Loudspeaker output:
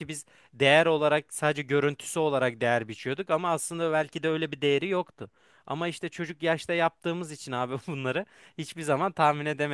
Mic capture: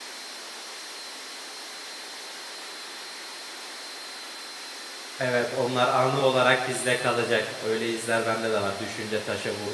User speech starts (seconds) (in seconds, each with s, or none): 5.2 s